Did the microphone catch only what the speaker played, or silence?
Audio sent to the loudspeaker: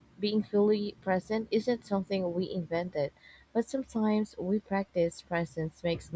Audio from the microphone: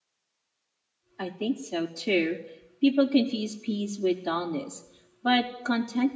No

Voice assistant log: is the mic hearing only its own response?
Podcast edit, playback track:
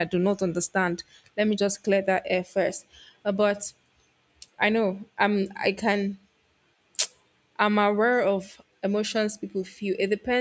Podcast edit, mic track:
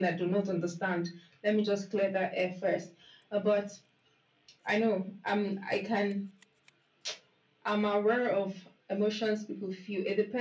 Yes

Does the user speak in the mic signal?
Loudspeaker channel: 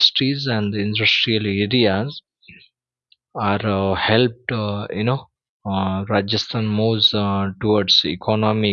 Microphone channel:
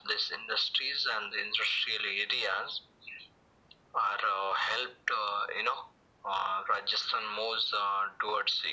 No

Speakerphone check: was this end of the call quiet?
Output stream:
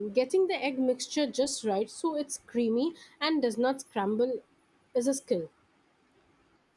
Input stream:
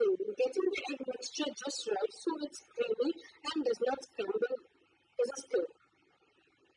Yes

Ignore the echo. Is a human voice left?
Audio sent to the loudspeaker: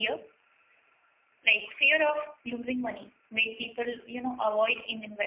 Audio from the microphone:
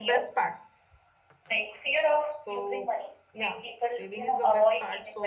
Yes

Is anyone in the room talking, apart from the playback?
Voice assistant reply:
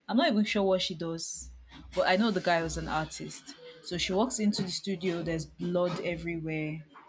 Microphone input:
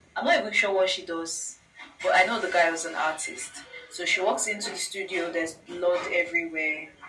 No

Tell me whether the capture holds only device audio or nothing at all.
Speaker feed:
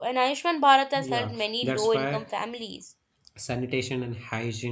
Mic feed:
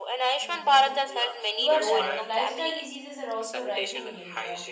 No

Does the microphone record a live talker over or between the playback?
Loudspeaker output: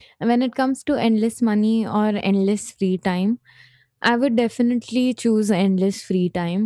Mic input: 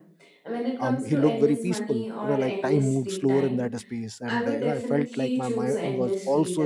Yes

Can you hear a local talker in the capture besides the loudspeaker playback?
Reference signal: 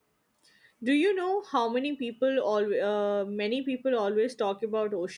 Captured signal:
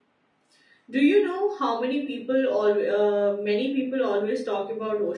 No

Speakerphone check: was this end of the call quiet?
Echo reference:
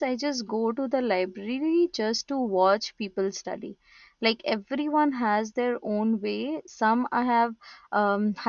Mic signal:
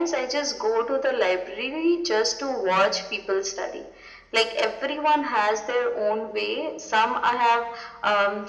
Yes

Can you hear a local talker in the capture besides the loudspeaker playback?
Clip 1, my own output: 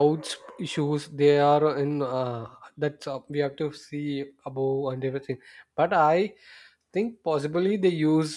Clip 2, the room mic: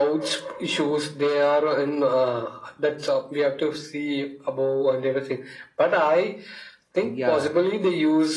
Yes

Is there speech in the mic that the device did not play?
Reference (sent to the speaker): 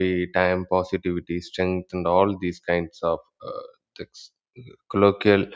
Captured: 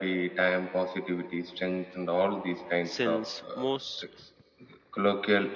Yes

